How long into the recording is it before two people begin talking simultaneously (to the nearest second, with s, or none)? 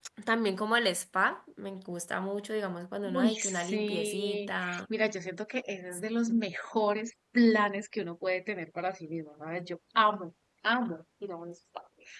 3 s